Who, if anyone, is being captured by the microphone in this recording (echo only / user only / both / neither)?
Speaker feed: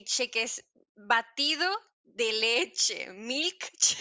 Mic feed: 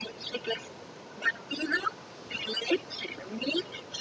echo only